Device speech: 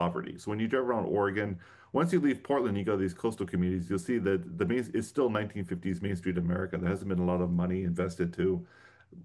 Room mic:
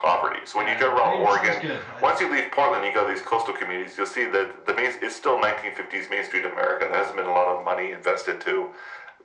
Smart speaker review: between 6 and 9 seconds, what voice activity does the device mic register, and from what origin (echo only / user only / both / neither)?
echo only